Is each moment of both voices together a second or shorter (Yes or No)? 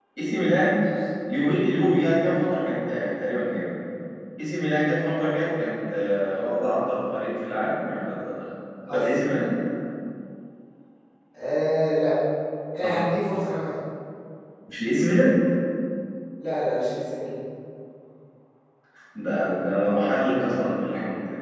Yes